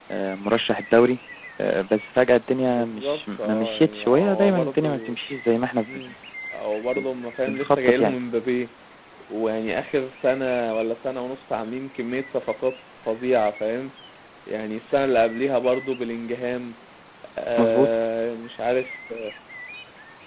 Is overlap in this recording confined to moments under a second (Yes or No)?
No